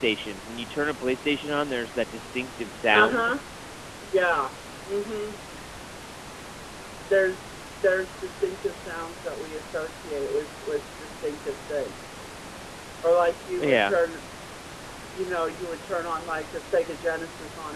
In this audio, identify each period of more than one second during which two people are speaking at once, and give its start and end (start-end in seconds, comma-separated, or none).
none